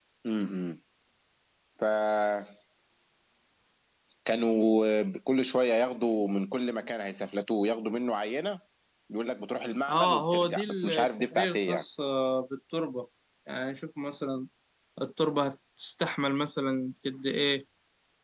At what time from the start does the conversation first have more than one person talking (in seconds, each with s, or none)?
9.9 s